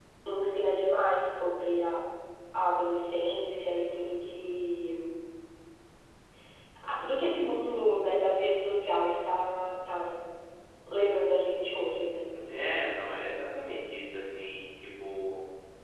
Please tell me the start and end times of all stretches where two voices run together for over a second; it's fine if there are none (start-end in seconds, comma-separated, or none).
none